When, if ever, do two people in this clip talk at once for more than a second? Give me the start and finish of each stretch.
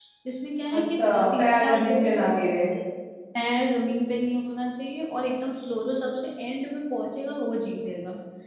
0.8-2.2

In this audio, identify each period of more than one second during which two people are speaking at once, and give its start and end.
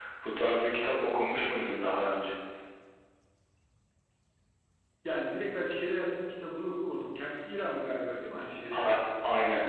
none

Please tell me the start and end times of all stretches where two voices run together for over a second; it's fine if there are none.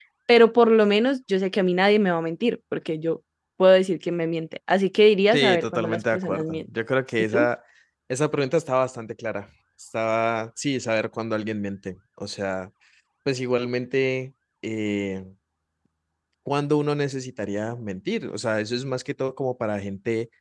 5.3-6.6

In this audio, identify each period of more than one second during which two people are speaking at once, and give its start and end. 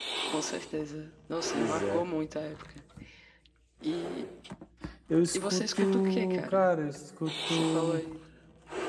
5.3-6.6

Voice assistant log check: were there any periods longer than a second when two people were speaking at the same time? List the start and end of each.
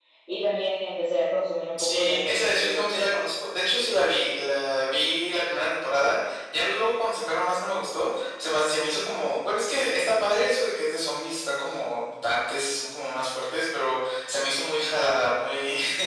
1.8-3.1

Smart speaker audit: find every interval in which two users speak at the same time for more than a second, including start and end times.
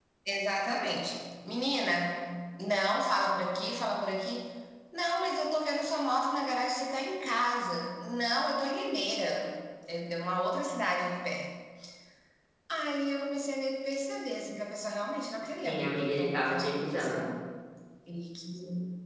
15.6-17.4

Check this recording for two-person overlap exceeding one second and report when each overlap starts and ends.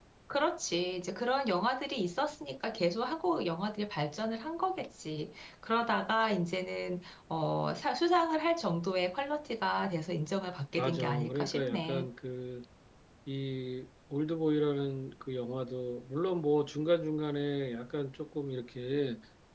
10.8-12.1

